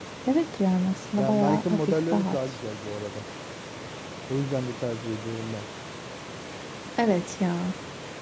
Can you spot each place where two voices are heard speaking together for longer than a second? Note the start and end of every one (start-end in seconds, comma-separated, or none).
1.2-2.4